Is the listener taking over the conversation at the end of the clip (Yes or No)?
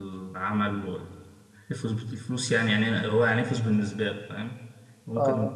Yes